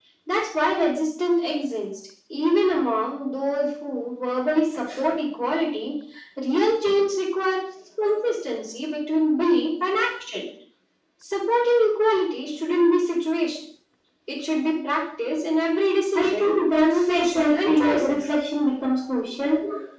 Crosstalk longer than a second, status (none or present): present